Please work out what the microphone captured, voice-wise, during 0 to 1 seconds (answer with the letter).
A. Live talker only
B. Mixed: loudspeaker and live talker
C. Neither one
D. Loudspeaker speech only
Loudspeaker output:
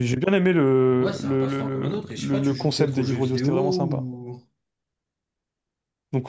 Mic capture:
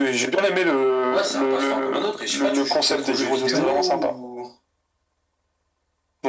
D